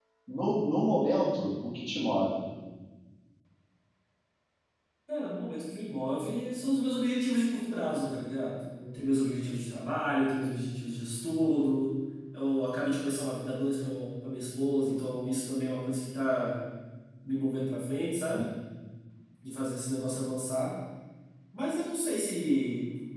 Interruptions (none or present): none